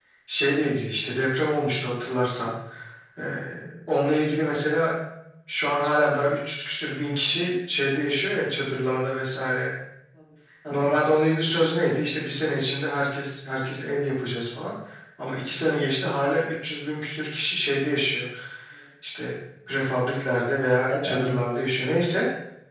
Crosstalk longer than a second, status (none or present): none